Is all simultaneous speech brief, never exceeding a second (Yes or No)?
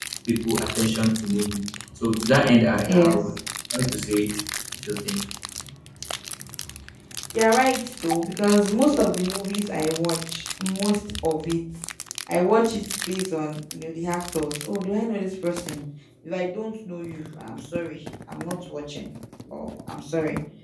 Yes